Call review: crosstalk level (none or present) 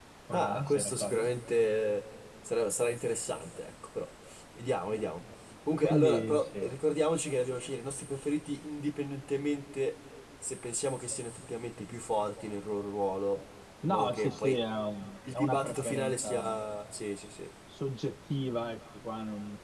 present